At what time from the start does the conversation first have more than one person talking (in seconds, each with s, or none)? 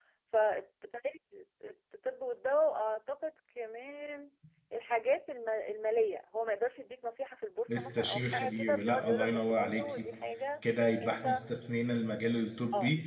7.7 s